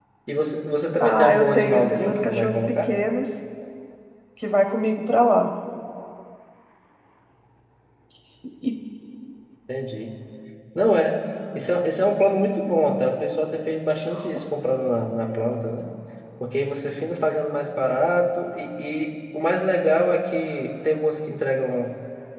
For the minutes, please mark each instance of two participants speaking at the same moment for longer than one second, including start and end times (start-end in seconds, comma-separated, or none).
1.0-2.9